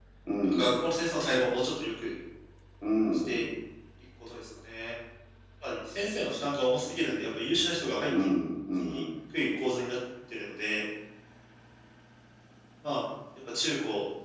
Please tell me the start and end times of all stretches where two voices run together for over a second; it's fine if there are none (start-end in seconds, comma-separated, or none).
none